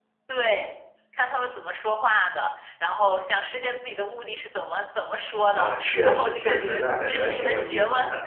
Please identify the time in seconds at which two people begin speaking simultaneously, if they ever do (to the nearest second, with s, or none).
5 s